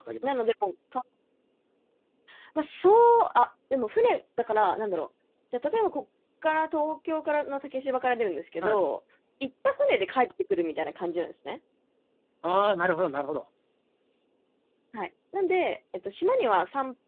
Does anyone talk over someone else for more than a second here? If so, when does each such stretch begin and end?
none

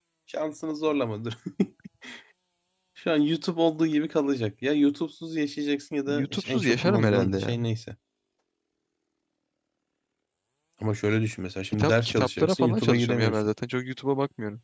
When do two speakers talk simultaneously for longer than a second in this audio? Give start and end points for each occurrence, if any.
6.1-7.6, 11.7-13.5

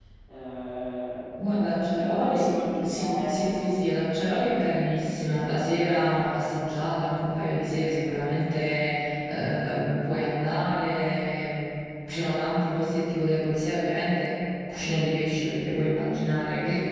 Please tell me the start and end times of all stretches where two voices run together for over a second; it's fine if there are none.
1.9-3.7

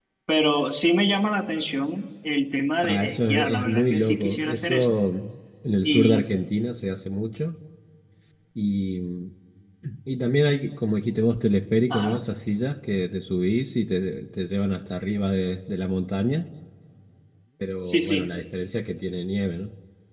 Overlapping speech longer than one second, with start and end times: 2.8-4.9

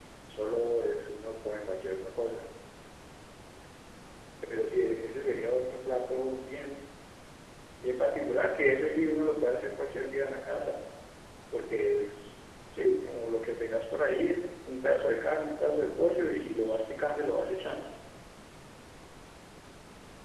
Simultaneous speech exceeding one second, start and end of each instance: none

